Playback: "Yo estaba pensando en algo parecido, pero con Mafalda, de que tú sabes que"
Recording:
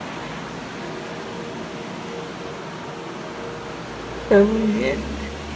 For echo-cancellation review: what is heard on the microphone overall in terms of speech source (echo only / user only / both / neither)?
user only